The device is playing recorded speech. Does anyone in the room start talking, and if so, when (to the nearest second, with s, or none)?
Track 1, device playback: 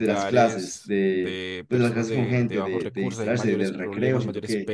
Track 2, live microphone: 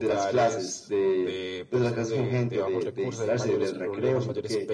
none